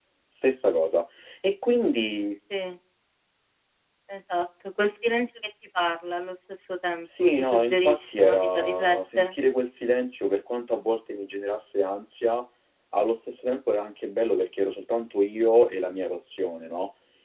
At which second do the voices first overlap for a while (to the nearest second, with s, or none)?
7 s